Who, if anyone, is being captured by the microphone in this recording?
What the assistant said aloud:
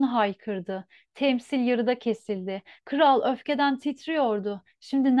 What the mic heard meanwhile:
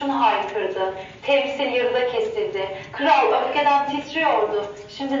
echo only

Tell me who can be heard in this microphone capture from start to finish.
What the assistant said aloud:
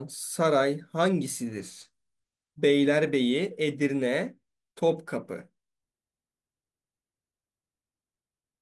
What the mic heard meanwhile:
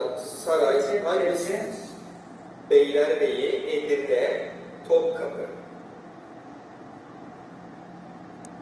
both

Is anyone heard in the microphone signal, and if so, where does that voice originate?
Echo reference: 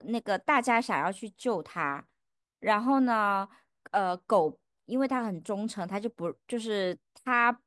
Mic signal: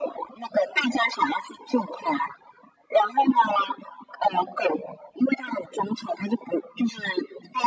echo only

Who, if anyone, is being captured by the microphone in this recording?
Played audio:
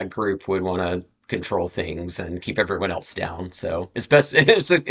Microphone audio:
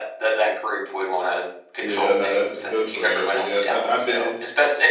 both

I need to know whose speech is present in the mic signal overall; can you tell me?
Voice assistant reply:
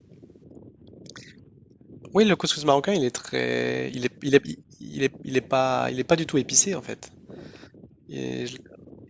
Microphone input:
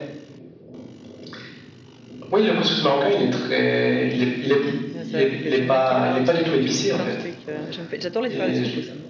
both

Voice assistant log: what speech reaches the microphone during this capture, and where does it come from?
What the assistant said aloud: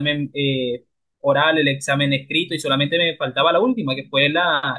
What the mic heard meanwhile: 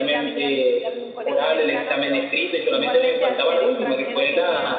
both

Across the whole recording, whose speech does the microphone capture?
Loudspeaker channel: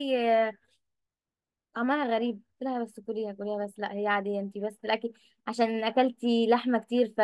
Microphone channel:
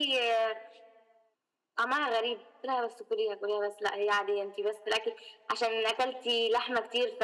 echo only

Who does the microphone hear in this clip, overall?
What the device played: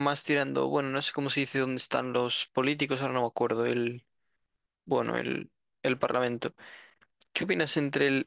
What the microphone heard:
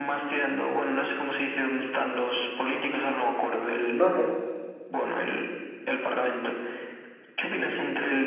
both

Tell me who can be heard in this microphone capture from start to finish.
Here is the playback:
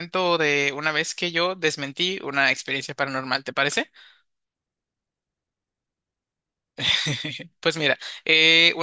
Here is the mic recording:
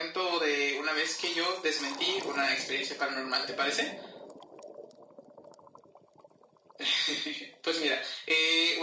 echo only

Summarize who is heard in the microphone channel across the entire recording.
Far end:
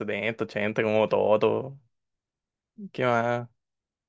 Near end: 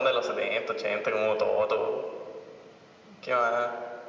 echo only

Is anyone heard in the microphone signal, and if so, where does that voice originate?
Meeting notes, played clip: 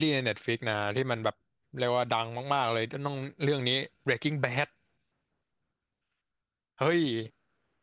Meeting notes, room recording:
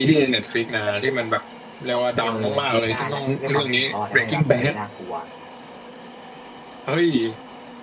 both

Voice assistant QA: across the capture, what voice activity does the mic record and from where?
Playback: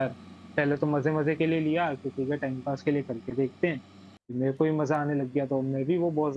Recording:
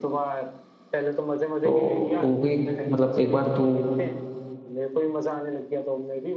both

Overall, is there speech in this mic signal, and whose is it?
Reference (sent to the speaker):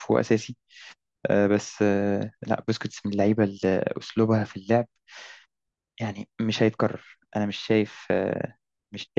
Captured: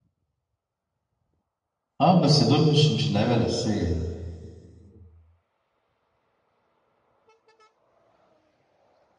user only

